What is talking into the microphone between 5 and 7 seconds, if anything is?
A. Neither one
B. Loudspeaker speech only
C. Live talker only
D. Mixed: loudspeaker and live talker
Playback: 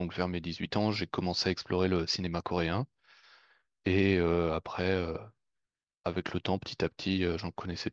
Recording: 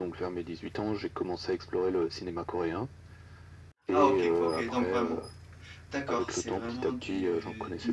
D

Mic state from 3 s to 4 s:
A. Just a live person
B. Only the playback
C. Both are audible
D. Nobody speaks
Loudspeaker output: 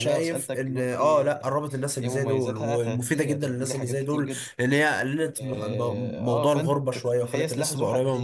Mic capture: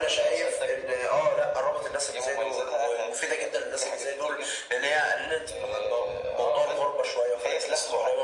B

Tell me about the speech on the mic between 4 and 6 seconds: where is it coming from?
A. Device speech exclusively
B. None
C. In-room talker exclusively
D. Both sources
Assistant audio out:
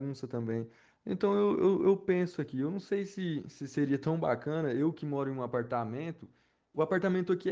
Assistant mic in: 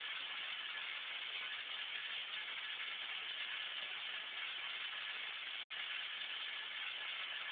B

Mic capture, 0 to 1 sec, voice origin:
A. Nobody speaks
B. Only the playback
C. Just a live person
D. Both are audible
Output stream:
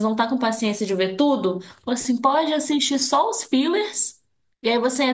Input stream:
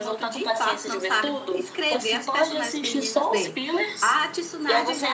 D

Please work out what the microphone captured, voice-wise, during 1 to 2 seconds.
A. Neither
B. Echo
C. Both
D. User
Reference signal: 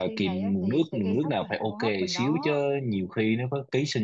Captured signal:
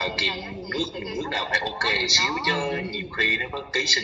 B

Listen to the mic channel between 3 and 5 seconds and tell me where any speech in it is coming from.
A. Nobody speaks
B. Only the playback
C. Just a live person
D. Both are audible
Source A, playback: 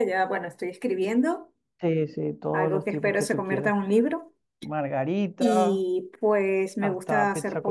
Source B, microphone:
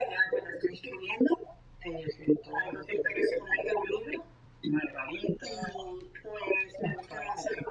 B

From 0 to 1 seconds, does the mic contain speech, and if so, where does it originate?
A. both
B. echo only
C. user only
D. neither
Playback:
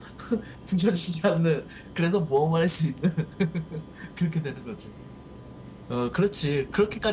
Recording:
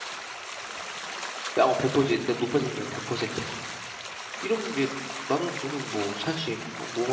D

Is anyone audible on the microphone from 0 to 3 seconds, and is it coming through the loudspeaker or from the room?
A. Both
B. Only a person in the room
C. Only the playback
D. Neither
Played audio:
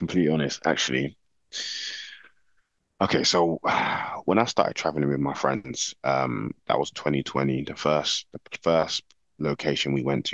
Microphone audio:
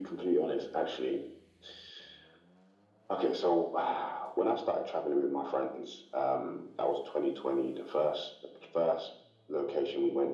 C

